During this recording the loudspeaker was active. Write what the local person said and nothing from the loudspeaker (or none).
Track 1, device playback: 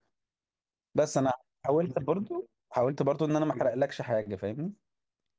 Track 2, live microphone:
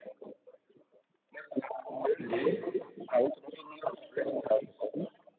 اللي إيه